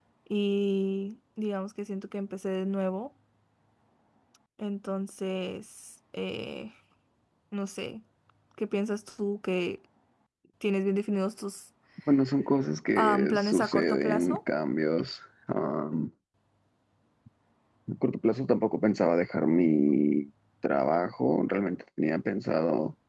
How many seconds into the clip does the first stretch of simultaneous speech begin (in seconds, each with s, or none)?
12.9 s